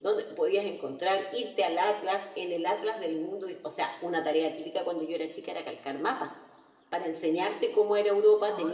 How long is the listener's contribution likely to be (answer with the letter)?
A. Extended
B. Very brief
B